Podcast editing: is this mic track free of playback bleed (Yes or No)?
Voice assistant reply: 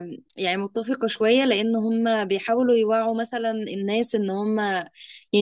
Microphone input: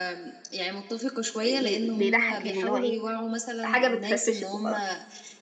No